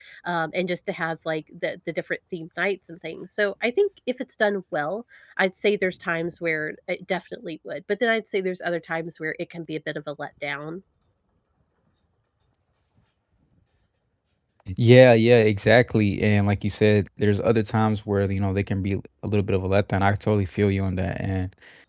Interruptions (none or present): none